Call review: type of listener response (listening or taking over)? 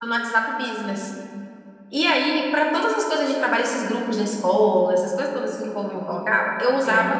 listening